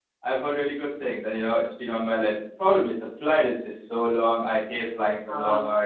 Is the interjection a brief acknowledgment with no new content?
Yes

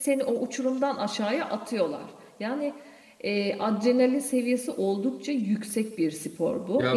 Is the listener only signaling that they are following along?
Yes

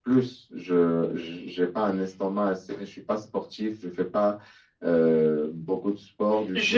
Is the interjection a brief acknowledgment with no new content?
No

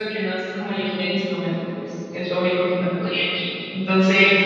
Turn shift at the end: No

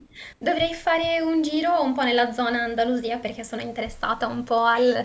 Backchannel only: Yes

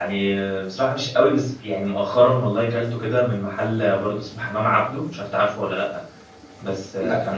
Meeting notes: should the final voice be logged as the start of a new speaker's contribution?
No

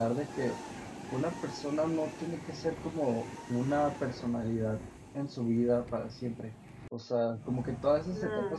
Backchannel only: Yes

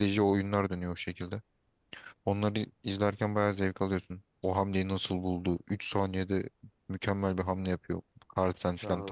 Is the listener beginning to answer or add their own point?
Yes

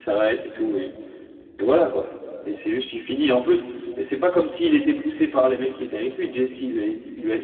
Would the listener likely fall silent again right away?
No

